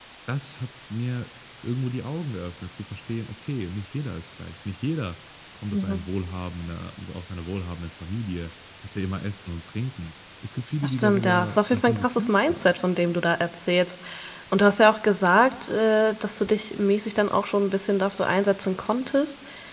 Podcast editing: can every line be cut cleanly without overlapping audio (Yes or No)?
No